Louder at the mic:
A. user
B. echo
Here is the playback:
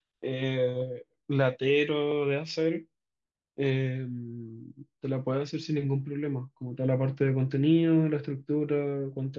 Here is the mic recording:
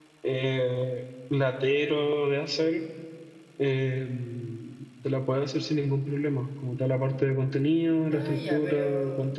B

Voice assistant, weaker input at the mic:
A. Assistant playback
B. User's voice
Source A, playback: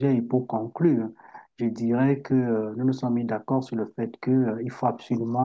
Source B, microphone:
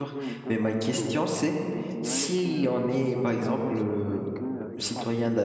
A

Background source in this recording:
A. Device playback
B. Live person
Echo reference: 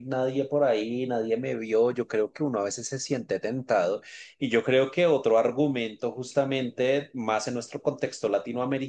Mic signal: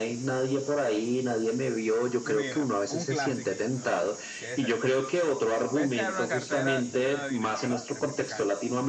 B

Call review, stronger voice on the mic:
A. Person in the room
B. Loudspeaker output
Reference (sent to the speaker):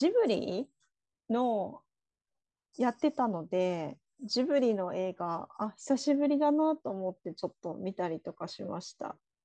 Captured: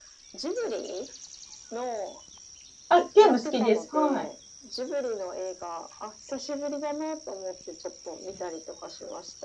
A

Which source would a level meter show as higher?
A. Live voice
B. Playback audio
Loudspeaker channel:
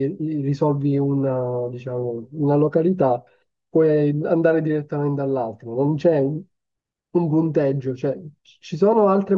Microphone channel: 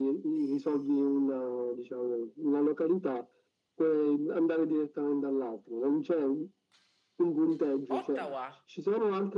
B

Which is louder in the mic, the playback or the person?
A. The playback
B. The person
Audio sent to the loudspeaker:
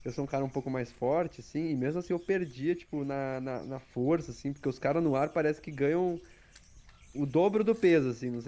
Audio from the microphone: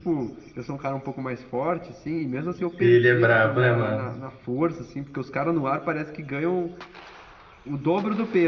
B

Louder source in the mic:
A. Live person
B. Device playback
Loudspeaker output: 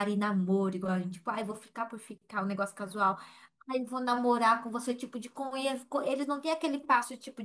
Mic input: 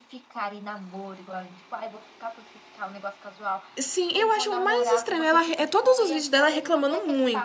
A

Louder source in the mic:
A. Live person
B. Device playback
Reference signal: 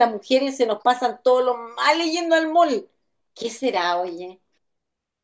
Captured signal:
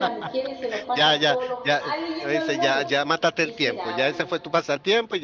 A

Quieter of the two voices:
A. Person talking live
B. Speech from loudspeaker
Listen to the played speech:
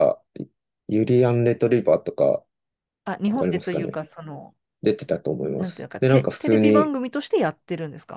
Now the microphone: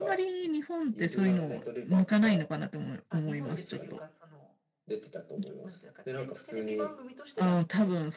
B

